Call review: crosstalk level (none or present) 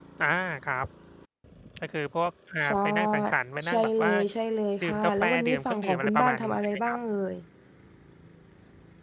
present